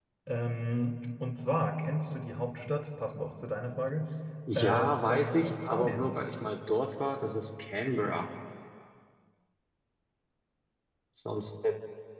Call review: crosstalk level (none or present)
present